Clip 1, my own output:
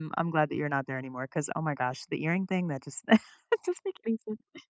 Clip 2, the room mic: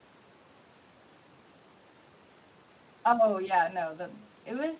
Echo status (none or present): none